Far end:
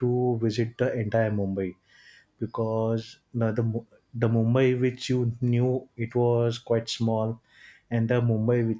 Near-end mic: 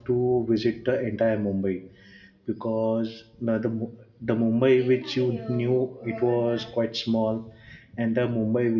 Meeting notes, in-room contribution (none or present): present